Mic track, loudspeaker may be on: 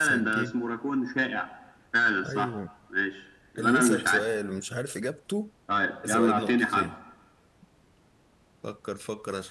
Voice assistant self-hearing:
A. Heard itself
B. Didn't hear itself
A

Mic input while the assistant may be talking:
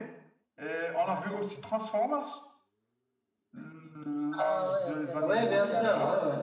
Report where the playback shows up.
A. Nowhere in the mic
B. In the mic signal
B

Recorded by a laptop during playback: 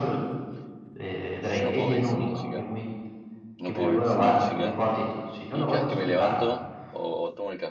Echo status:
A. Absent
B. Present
B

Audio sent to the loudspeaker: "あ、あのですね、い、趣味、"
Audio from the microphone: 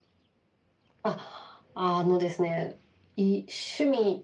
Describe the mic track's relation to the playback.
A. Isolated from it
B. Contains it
B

